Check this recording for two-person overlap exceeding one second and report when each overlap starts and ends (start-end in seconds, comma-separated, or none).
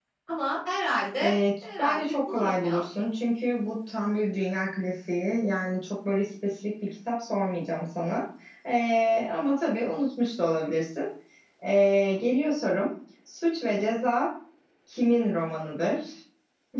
1.2-2.9